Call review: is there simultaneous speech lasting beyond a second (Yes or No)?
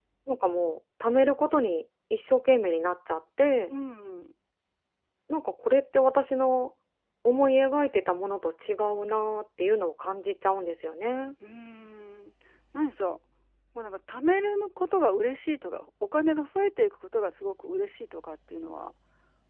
No